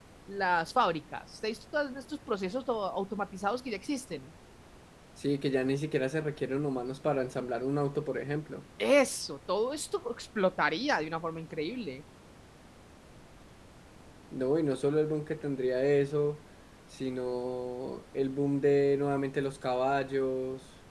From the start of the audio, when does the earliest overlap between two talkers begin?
none

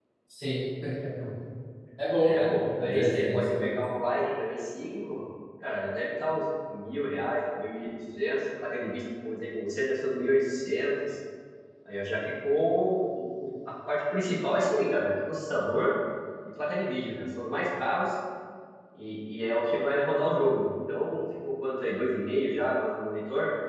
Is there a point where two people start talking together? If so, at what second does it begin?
2 s

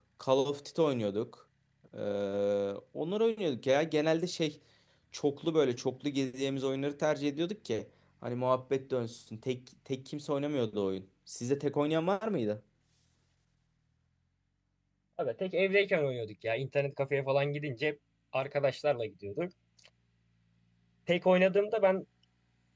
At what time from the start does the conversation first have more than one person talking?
none

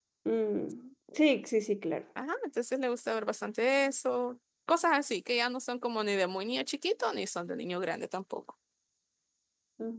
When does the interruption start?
none

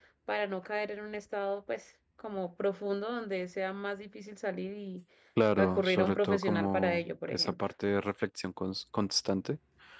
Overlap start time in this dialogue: 6 s

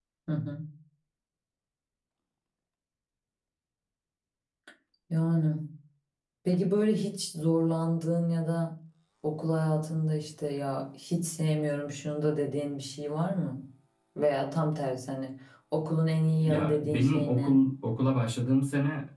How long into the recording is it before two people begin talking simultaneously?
16 s

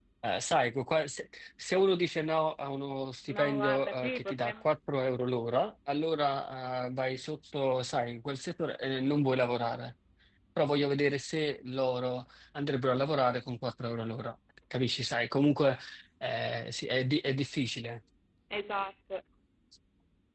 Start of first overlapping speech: 3 s

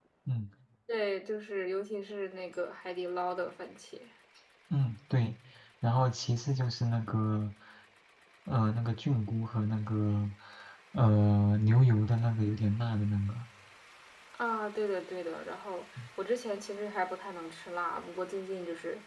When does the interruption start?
none

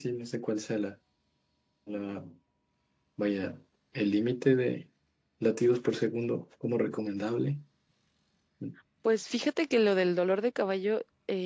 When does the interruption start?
none

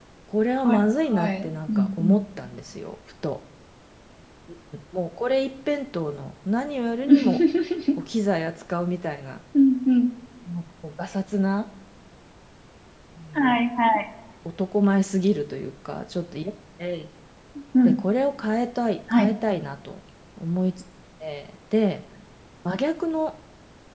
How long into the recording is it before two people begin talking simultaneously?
1 s

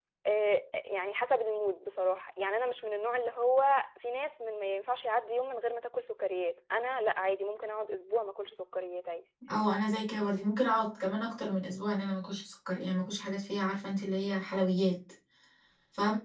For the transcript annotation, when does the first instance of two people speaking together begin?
none

